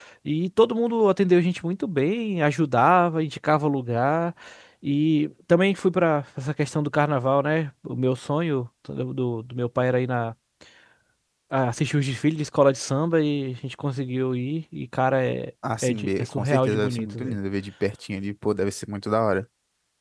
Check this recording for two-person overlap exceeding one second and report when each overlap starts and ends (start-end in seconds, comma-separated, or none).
15.8-17.4